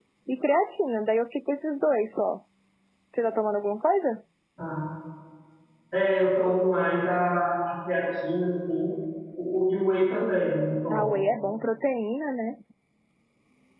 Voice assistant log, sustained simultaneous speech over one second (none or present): none